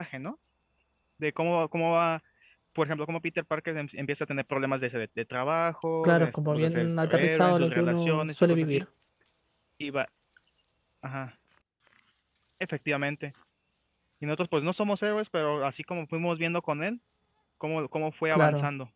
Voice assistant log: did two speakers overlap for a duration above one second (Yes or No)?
Yes